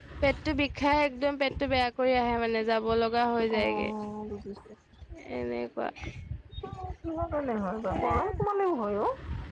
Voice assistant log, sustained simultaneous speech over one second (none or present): none